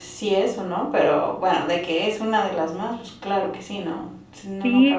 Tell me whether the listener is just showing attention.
No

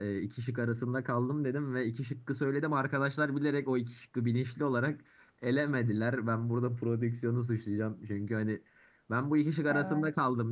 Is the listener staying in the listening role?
Yes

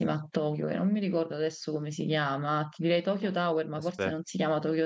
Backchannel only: Yes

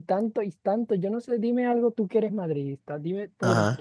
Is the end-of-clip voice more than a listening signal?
No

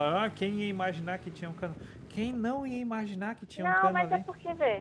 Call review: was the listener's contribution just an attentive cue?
No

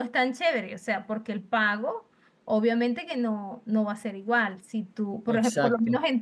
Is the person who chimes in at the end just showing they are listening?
Yes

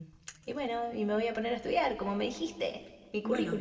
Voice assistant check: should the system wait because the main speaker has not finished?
No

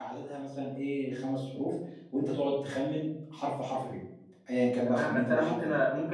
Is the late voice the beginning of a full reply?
Yes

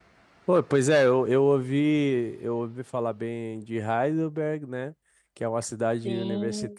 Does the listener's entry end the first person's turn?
No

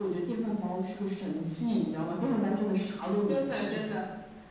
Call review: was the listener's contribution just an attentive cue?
No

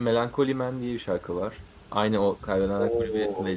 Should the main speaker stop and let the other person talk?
Yes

